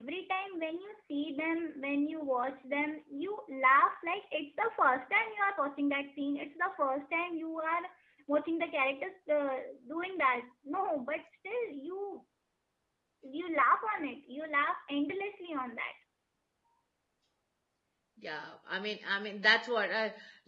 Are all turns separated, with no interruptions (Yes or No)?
Yes